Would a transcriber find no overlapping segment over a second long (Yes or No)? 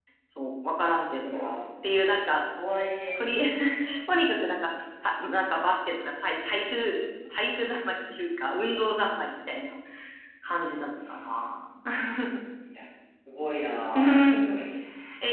Yes